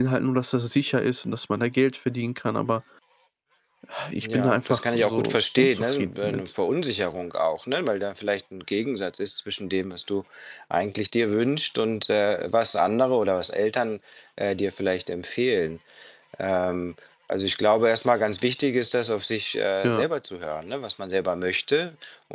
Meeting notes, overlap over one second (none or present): present